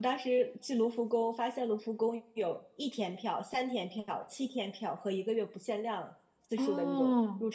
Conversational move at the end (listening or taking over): listening